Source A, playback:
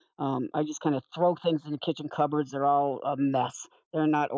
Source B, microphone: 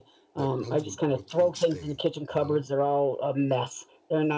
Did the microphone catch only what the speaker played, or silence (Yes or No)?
No